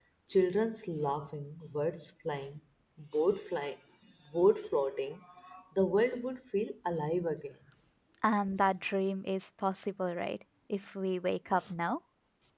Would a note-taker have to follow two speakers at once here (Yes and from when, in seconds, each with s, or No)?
No